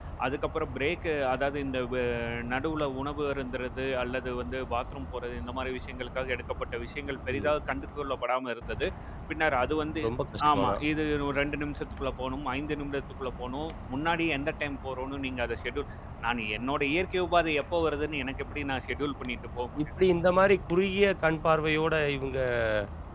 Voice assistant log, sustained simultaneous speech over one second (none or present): none